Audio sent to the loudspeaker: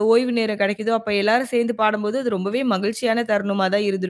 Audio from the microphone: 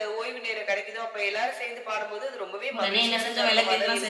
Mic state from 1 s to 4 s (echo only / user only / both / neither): both